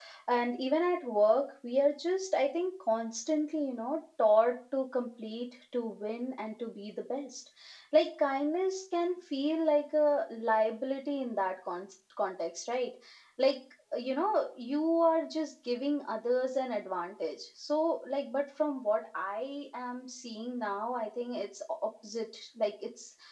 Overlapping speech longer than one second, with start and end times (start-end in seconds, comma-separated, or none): none